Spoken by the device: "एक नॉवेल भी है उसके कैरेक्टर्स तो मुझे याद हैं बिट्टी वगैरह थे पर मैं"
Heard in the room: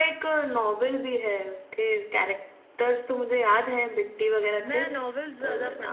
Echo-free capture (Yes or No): No